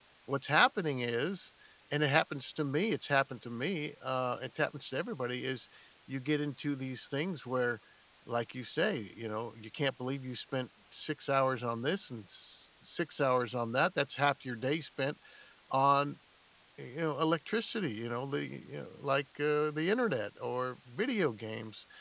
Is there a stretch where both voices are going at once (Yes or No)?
No